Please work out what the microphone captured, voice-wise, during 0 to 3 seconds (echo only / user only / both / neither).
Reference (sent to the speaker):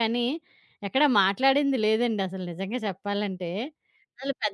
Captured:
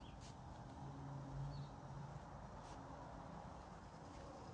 neither